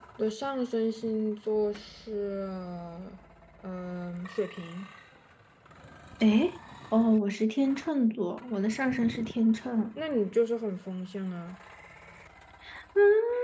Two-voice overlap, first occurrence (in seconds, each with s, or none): none